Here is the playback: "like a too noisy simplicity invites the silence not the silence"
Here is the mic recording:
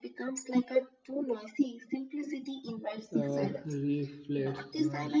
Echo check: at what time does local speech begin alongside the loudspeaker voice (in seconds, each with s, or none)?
3.1 s